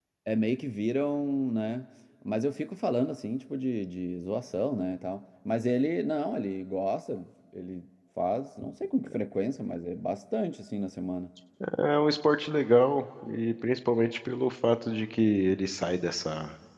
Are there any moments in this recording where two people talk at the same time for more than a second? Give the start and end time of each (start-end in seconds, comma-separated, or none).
none